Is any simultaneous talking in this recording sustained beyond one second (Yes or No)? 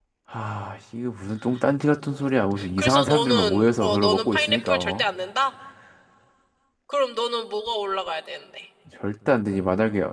Yes